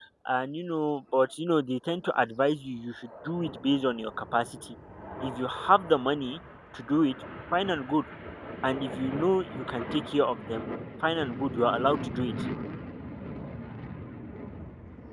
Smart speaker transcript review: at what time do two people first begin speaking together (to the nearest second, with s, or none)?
none